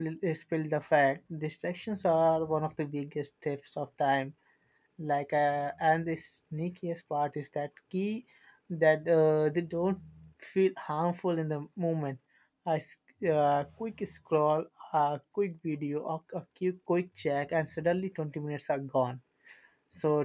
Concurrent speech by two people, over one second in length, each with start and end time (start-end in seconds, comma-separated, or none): none